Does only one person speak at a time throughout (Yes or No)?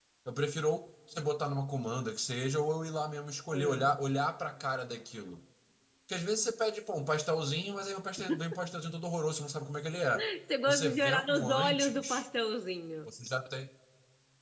No